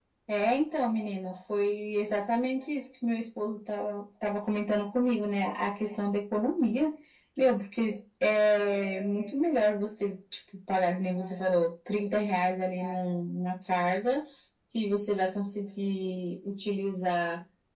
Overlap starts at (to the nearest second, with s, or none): none